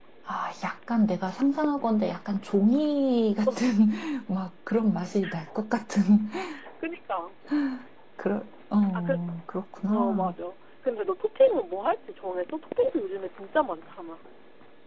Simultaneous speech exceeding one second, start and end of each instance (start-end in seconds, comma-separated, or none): none